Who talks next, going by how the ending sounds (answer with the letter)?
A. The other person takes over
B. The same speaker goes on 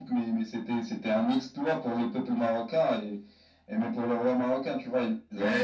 A